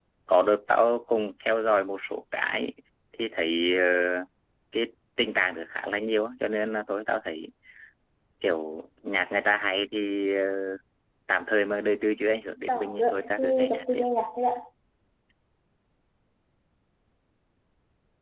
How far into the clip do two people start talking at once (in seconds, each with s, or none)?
12.7 s